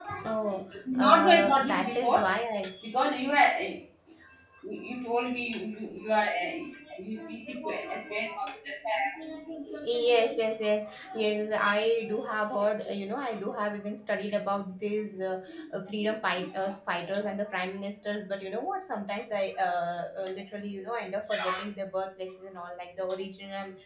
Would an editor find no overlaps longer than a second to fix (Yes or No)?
No